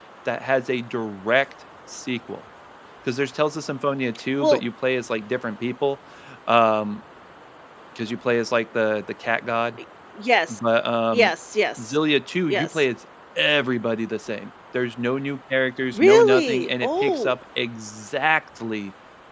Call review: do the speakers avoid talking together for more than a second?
No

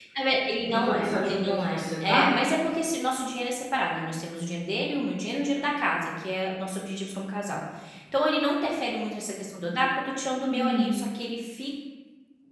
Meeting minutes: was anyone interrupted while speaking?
Yes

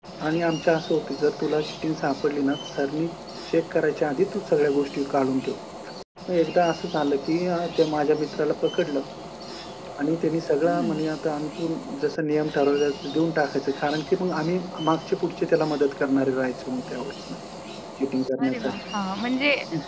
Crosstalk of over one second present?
No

